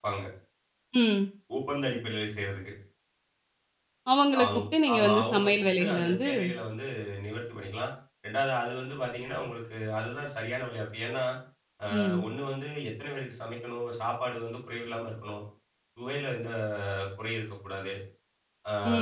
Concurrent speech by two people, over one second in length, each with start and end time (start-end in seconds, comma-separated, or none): 4.4-6.3